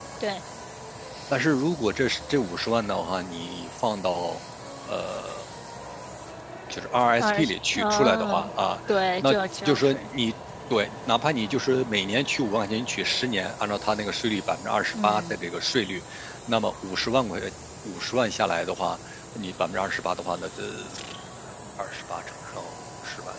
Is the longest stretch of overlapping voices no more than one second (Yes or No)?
No